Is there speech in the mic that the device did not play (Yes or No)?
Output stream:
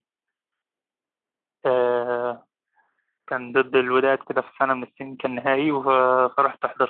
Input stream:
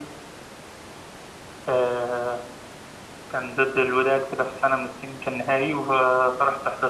No